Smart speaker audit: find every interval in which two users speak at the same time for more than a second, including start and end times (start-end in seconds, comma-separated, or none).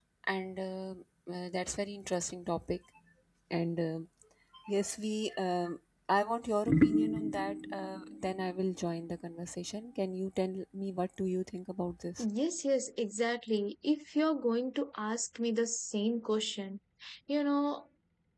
none